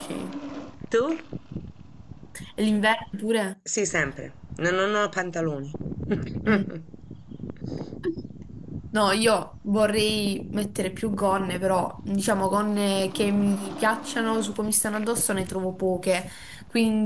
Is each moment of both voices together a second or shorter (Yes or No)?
Yes